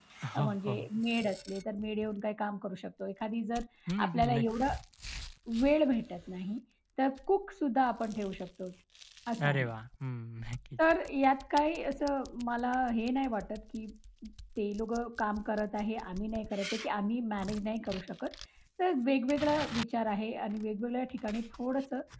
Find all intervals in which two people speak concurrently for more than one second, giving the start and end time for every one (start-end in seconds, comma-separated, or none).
none